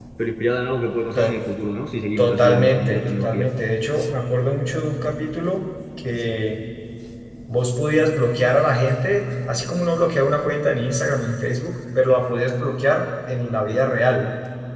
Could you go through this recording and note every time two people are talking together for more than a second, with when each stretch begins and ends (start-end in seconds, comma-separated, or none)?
2.2-3.5